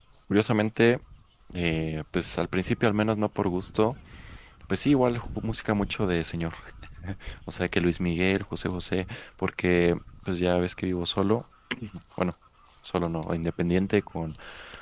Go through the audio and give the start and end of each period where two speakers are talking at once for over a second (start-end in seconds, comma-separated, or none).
none